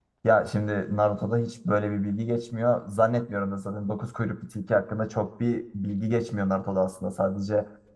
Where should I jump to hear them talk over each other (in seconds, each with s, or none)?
none